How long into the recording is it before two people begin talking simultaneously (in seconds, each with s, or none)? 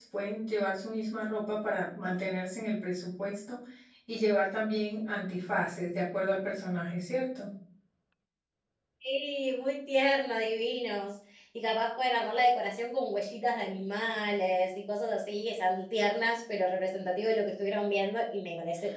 none